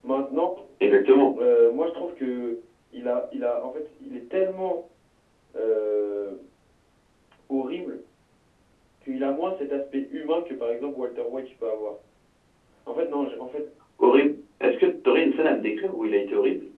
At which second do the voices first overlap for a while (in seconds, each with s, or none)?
none